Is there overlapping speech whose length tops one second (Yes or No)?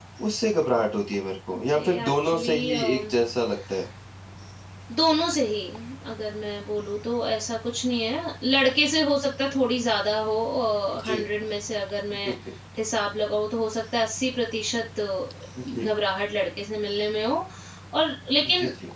Yes